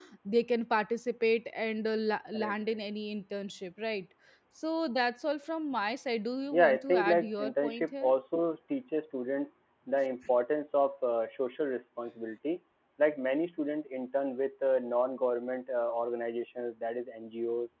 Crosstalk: present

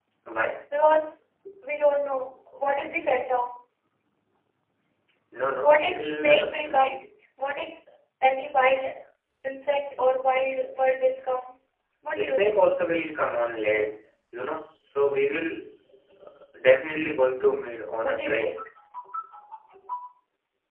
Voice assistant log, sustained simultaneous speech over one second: present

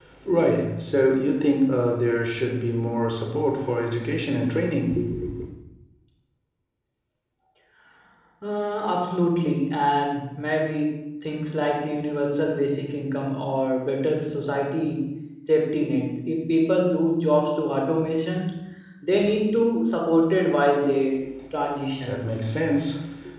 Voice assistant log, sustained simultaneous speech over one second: none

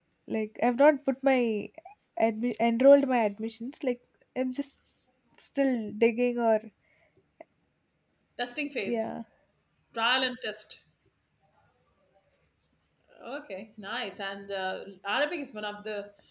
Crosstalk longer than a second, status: none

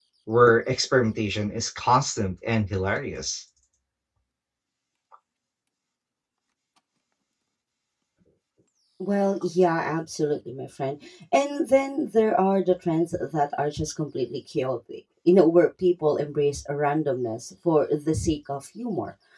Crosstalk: none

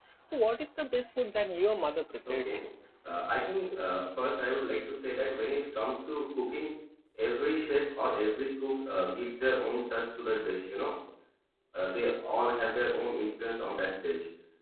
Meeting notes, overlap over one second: none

